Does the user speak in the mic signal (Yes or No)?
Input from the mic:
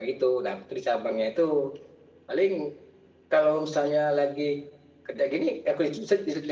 No